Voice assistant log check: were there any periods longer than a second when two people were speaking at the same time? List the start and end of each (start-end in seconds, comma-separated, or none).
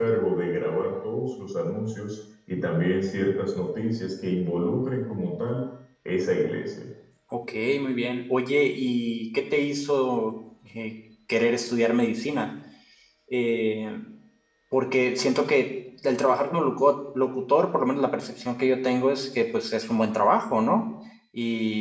none